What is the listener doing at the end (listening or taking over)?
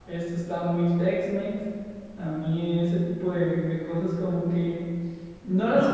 listening